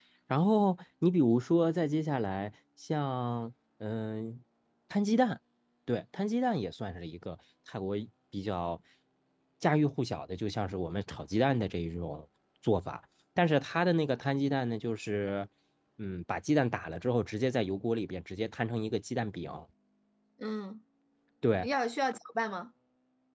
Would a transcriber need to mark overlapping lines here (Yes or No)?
No